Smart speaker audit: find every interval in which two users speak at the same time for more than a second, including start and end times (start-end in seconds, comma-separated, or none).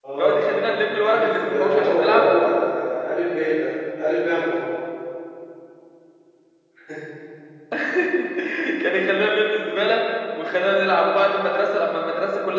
0.9-2.3